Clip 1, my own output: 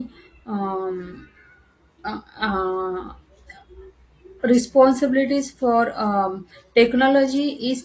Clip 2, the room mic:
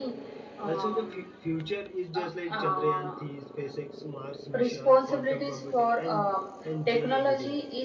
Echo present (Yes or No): Yes